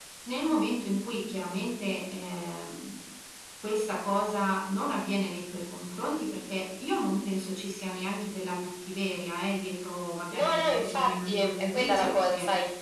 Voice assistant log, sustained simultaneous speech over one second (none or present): present